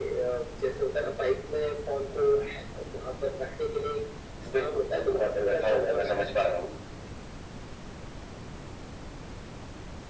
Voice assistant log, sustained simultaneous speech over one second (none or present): present